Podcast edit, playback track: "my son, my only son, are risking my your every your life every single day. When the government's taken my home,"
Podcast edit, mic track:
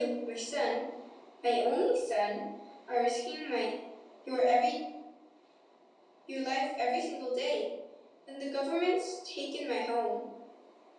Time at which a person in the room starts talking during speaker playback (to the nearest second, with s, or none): none